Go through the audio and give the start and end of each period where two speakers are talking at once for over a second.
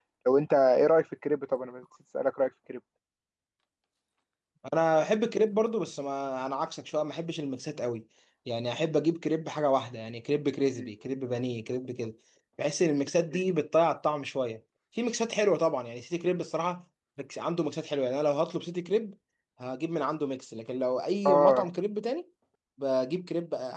none

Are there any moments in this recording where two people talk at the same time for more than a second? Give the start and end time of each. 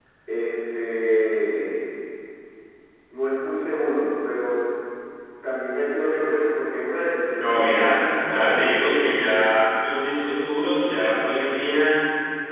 7.4-8.8

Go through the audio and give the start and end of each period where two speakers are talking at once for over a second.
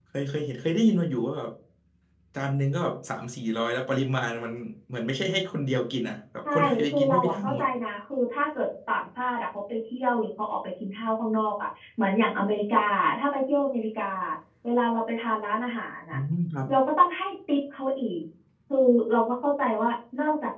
6.5-7.7

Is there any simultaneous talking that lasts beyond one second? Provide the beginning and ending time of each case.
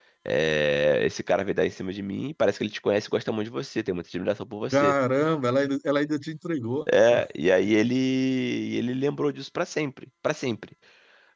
none

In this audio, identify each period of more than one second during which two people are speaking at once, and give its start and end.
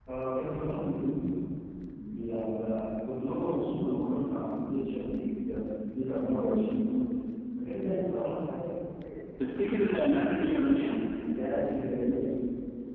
none

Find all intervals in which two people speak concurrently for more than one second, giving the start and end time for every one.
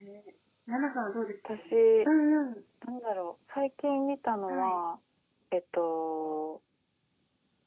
none

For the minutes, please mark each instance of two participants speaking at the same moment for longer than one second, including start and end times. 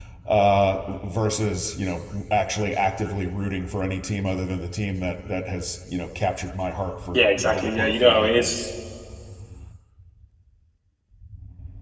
7.1-8.6

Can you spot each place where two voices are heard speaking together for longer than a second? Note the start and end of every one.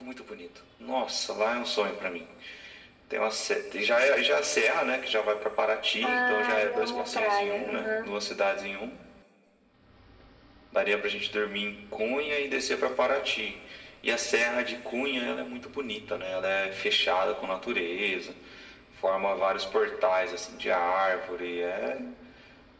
6.0-8.1

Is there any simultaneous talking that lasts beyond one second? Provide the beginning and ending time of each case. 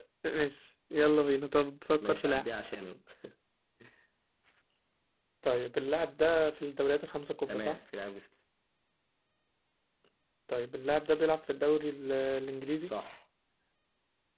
none

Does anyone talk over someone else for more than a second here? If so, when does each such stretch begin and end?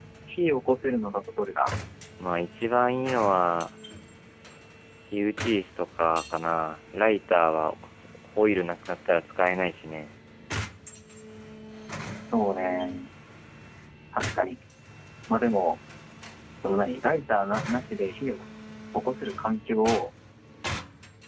none

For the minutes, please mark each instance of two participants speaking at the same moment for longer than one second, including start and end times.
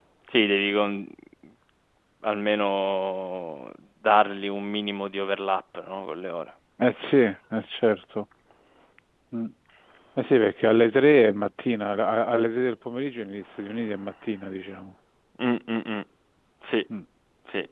none

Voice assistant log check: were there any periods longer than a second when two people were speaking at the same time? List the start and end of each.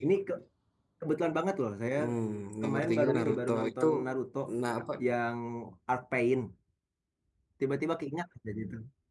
2.6-3.9

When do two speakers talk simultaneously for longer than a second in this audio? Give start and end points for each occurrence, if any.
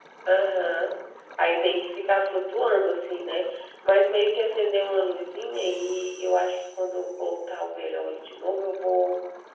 none

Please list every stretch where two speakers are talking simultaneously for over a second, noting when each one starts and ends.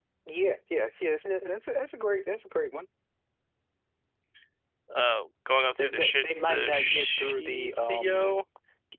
5.8-8.4

